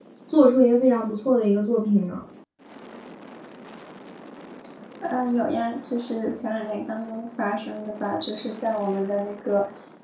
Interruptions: none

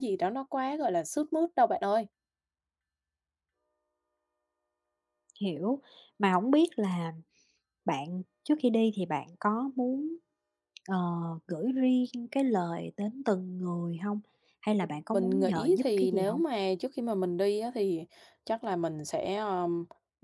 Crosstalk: present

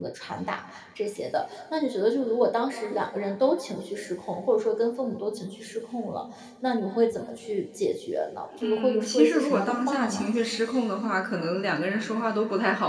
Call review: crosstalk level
present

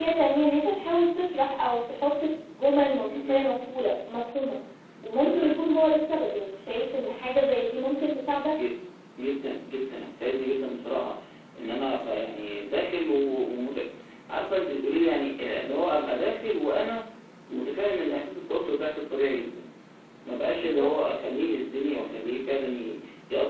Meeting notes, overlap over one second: none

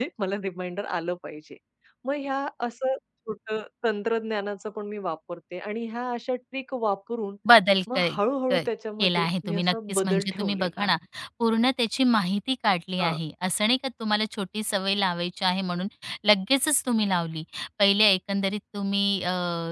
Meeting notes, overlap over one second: present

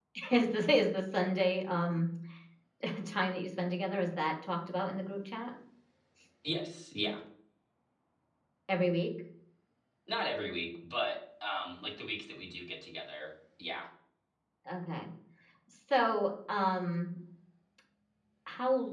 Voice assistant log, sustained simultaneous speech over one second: none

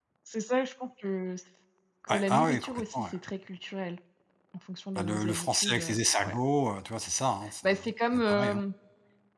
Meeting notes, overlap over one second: present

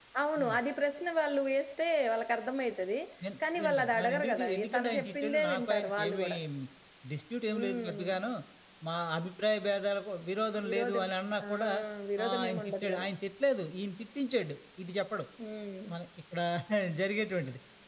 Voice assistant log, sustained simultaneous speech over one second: present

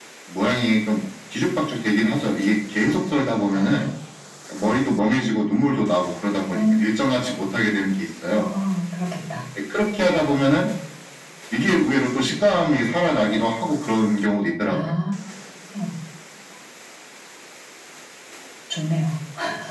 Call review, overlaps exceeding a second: none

